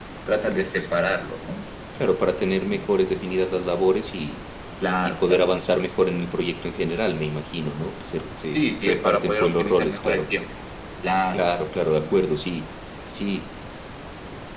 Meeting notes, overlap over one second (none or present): present